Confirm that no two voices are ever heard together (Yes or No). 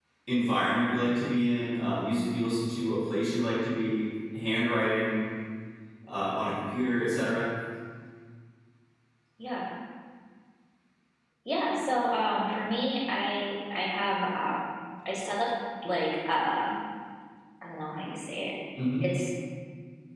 Yes